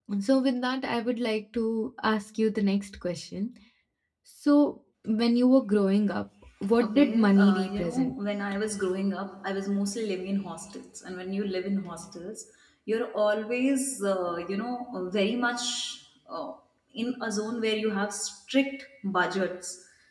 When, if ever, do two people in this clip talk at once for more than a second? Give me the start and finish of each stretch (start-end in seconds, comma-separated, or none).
6.8-8.1